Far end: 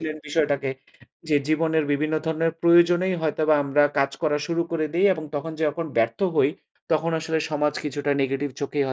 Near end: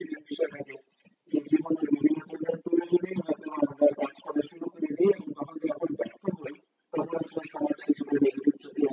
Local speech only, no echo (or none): none